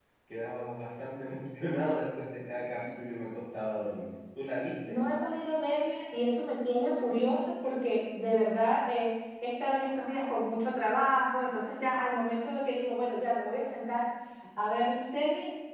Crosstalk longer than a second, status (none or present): none